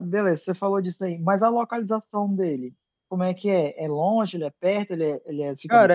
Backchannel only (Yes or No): No